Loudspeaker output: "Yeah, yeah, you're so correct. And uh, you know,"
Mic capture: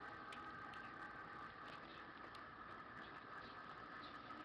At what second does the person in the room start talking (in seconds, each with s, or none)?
none